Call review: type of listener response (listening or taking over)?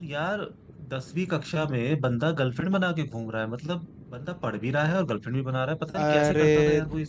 taking over